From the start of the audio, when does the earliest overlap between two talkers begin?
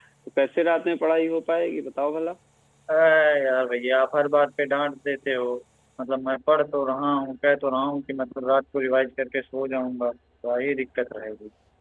none

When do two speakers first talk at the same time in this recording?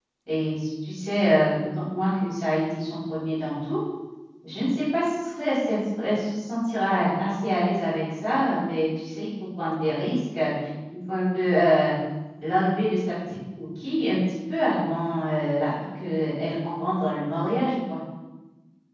none

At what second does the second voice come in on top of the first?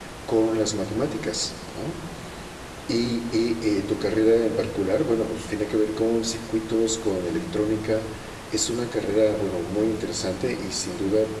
none

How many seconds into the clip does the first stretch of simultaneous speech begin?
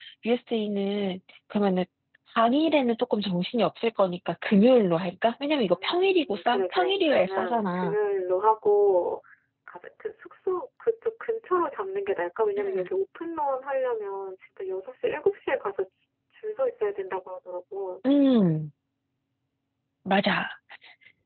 5.7 s

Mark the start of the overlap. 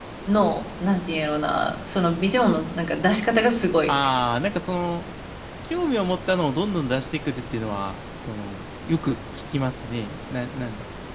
none

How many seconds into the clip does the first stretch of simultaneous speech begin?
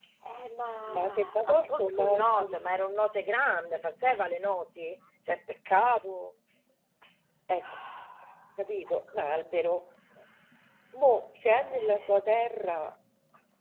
0.9 s

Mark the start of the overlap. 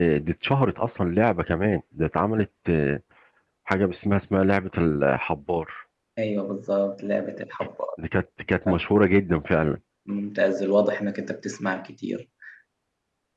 none

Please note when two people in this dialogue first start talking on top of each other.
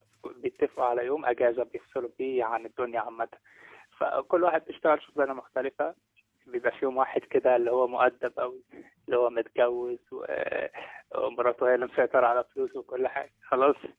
none

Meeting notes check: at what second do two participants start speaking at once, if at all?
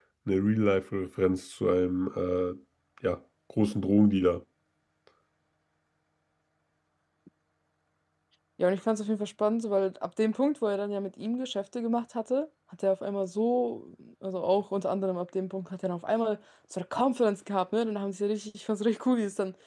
none

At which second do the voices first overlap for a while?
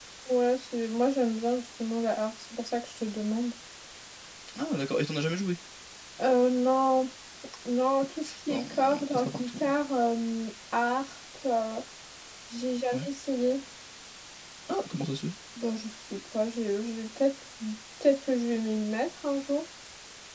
8.5 s

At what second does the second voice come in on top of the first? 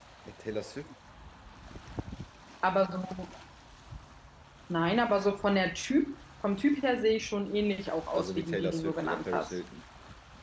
8.1 s

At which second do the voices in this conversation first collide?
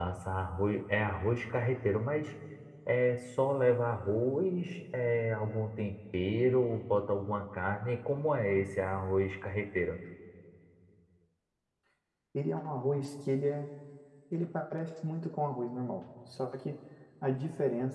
none

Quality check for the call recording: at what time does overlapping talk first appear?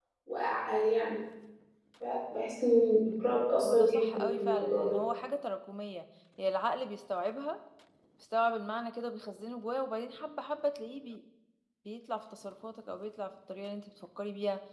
3.6 s

